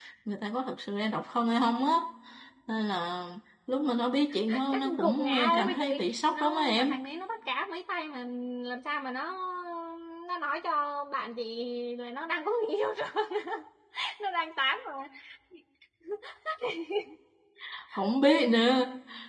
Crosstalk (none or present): present